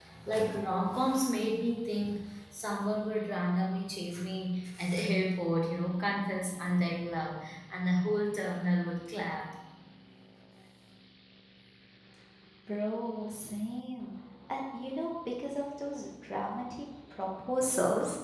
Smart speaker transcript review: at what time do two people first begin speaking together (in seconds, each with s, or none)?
none